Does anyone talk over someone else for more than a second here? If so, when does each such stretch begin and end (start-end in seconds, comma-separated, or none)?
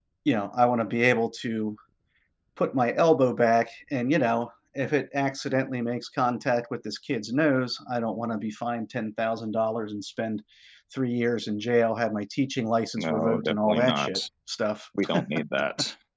13.0-14.2